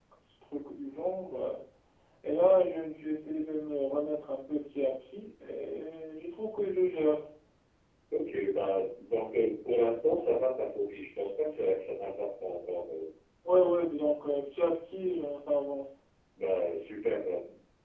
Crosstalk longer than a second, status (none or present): none